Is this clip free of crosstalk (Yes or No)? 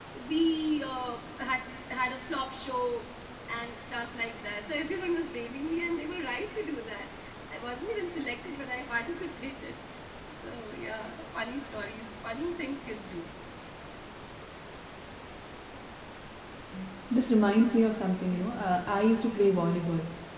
Yes